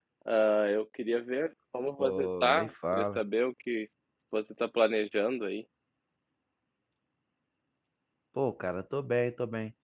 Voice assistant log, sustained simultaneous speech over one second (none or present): present